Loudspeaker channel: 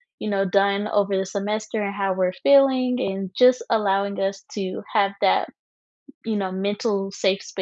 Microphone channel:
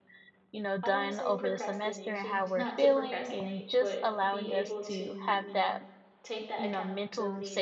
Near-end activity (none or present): present